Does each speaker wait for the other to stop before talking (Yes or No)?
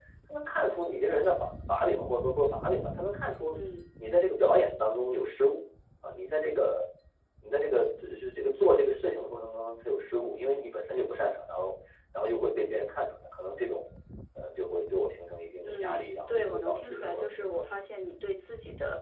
No